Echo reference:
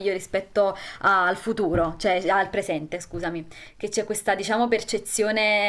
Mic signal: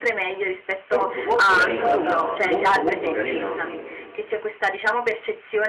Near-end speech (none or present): present